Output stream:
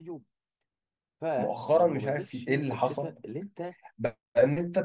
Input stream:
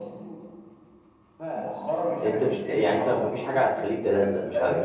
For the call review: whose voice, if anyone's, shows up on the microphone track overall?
both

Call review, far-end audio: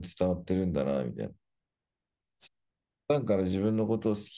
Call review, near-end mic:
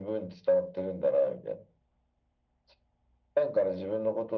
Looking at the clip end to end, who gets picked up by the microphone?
echo only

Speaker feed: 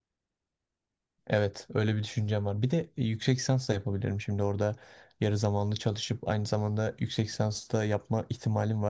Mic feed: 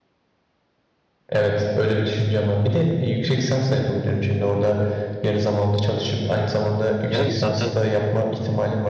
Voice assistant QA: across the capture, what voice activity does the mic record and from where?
both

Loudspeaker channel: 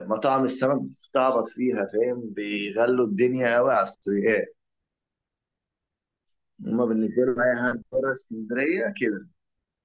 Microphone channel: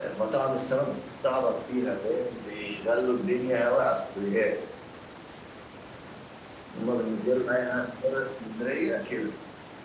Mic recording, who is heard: echo only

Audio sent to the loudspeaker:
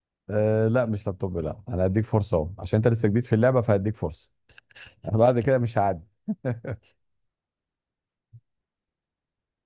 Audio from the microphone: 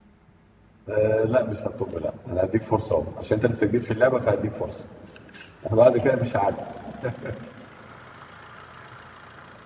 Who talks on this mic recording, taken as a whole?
echo only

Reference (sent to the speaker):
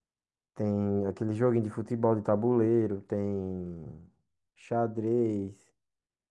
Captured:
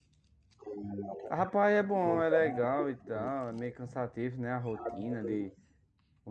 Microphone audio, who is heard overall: both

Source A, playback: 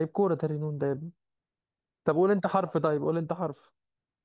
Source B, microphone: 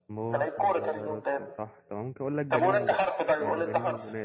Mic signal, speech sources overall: both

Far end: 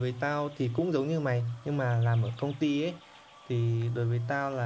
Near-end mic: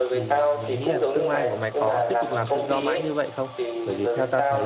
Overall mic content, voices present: both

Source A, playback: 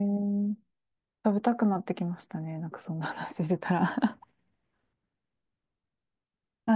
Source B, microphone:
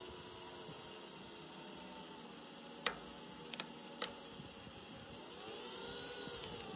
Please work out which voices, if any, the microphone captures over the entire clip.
neither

